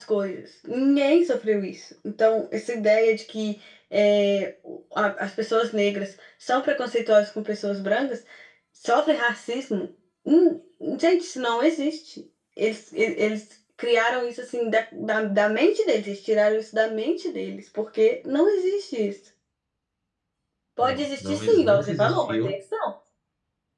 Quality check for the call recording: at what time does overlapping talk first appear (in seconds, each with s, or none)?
20.8 s